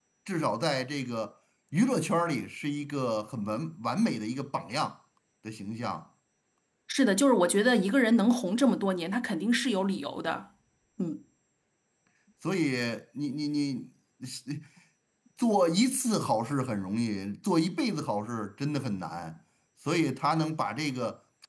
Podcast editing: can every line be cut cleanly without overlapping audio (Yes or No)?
Yes